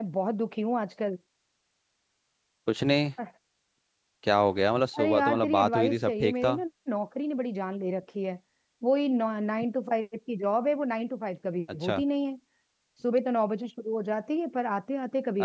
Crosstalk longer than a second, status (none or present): present